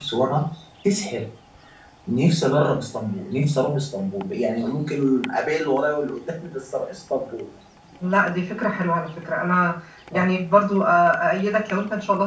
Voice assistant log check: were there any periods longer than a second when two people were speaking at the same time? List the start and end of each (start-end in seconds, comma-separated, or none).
none